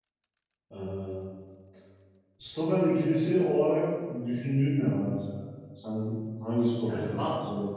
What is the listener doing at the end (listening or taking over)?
taking over